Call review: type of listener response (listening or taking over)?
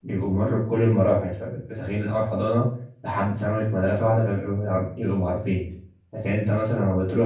listening